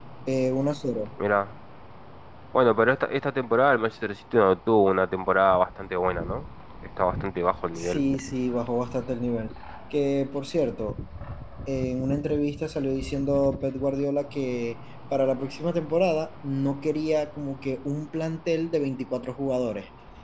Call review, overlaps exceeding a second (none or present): none